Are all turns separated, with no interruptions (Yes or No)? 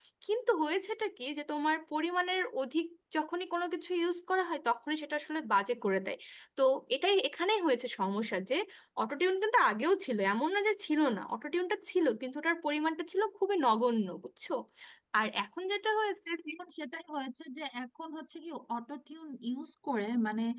Yes